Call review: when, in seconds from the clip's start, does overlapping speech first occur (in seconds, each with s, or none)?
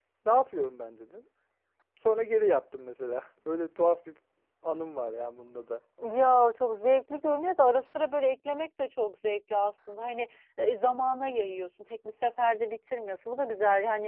none